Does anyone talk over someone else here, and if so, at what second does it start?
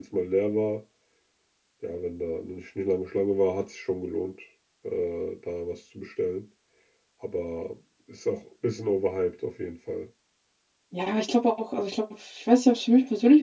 none

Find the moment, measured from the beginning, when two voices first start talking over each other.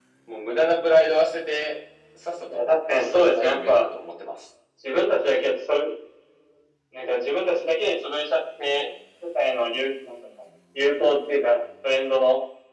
2 s

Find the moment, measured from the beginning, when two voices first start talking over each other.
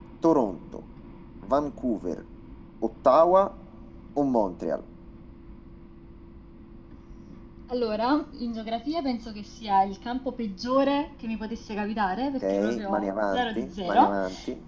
12 s

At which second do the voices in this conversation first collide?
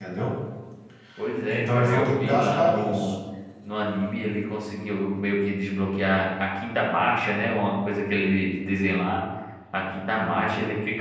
1 s

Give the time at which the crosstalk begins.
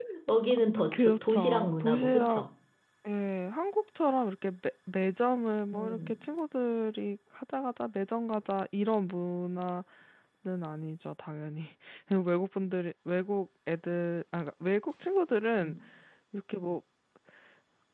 1 s

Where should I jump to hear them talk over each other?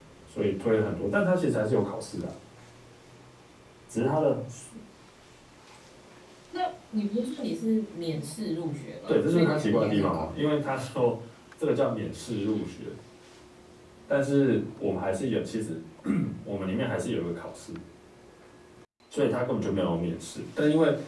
9 s

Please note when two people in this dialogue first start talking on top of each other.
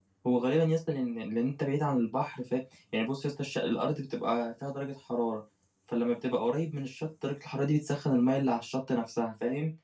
none

